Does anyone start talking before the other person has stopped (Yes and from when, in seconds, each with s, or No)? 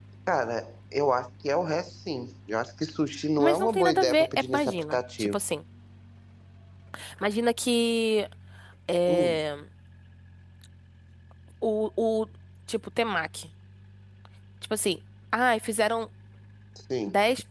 Yes, from 3.4 s